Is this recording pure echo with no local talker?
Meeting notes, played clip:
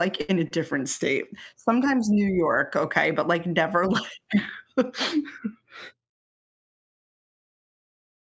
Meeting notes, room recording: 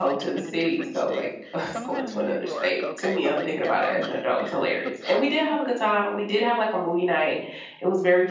No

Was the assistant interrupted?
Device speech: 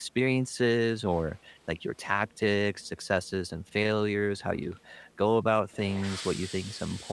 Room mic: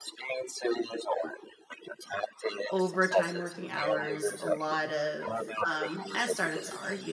Yes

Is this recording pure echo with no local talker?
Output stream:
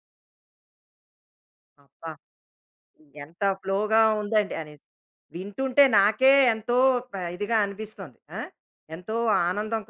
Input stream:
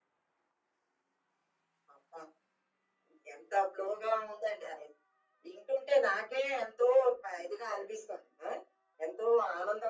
Yes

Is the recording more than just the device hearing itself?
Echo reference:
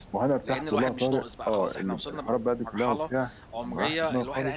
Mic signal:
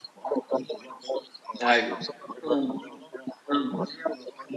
Yes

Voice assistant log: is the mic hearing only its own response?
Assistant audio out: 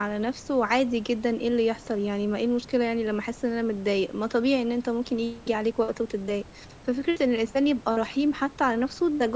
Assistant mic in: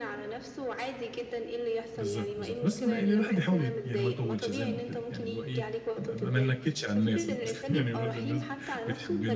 No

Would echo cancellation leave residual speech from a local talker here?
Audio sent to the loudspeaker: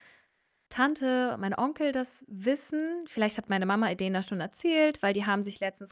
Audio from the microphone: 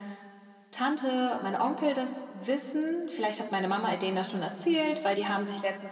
No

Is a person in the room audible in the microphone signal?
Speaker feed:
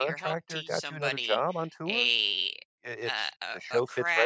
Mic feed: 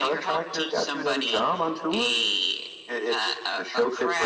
No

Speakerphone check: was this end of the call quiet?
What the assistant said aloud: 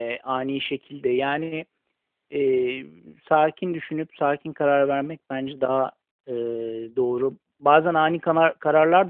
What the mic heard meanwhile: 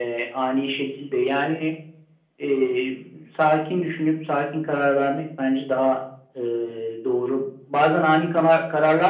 Yes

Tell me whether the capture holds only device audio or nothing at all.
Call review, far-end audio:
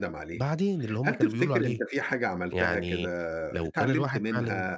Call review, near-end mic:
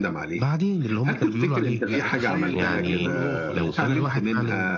No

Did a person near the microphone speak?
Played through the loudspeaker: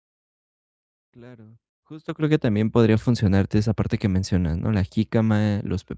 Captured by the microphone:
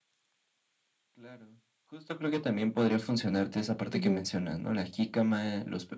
Yes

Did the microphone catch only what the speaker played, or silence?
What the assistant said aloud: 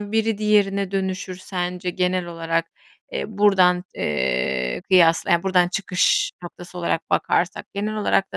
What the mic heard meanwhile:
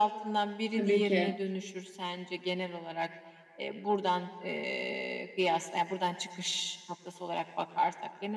No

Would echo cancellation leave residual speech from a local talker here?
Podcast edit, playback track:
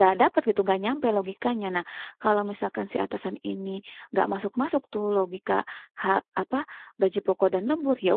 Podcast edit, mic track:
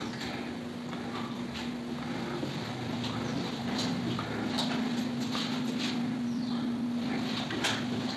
No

